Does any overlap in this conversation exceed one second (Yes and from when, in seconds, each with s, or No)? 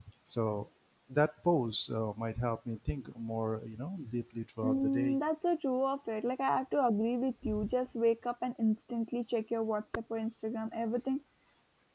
No